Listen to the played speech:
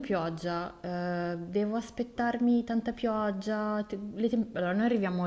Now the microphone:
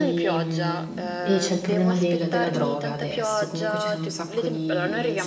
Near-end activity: present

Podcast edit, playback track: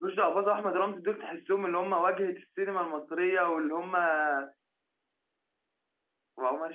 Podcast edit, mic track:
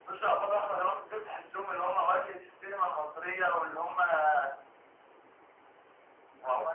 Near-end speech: none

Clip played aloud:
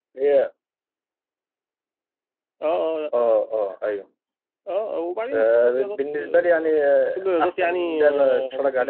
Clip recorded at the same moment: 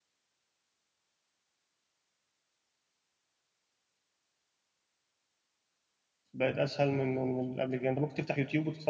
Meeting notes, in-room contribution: present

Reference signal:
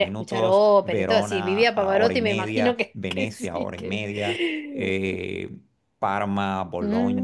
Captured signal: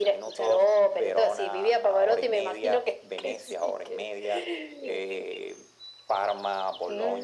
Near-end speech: none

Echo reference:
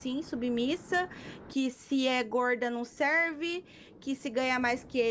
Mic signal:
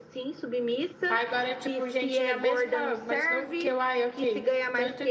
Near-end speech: present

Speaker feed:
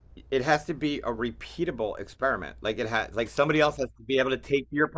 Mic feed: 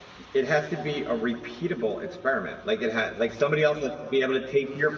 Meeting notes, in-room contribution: none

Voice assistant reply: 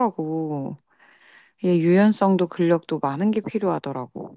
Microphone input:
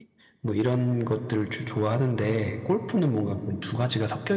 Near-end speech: present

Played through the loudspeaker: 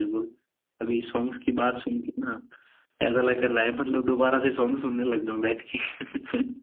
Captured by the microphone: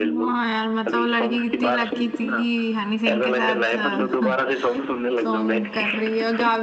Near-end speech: present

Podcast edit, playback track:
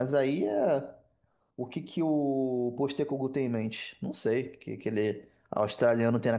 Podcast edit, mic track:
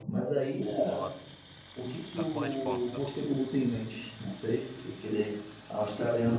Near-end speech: present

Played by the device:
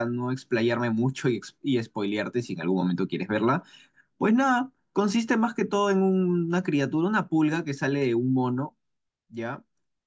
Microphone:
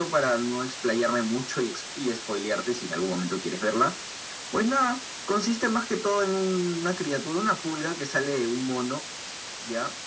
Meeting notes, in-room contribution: none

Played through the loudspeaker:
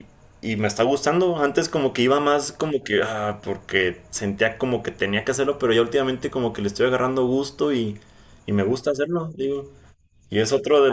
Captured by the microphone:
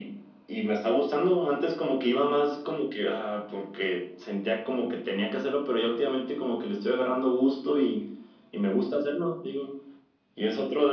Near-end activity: none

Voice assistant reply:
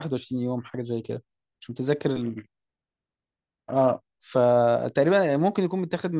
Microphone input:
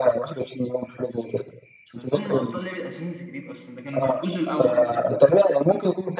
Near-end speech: present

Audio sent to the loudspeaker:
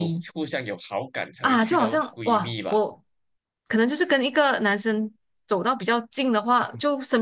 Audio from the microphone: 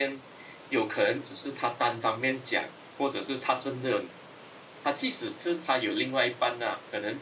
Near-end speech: present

